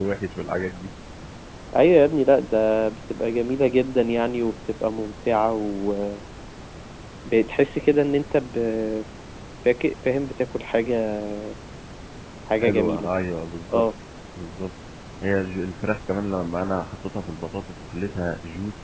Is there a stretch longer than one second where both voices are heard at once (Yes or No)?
No